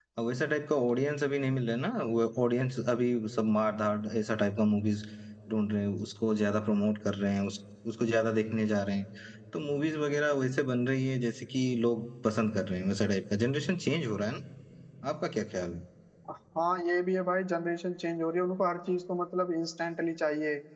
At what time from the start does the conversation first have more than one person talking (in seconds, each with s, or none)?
none